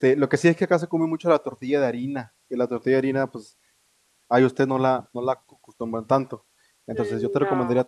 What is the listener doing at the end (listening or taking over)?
listening